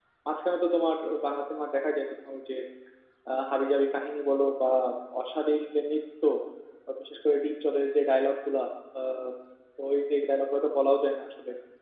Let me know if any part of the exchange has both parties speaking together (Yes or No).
No